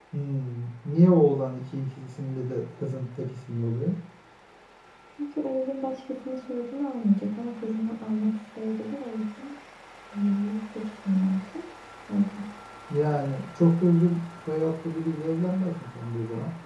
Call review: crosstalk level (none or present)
none